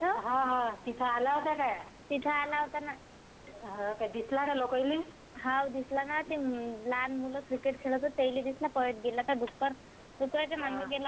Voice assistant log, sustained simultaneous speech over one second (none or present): none